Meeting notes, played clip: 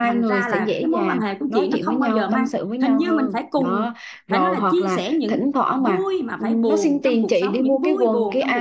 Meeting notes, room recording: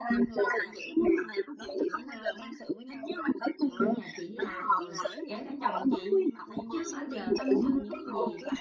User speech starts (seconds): 3.8 s

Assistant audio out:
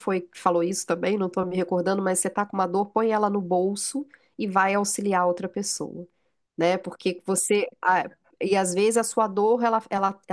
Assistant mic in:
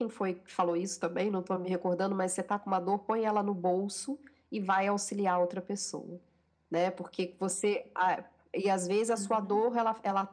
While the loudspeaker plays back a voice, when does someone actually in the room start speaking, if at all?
9.1 s

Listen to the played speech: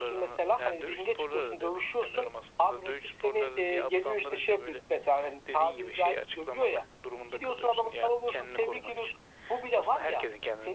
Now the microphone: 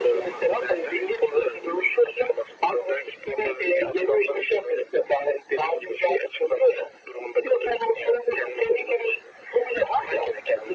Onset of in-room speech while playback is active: none

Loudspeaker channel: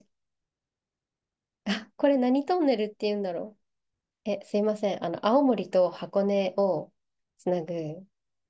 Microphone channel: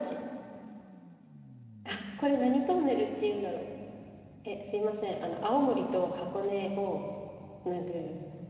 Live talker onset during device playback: none

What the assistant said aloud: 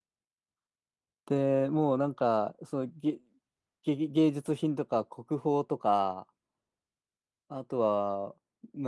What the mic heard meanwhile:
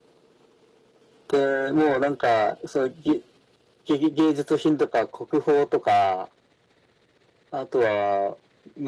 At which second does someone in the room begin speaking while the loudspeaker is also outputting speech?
none

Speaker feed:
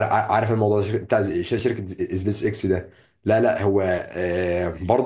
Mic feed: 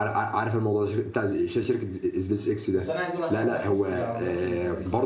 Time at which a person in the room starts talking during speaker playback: 2.7 s

